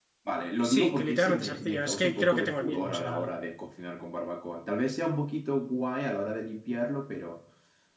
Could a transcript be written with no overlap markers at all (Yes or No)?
No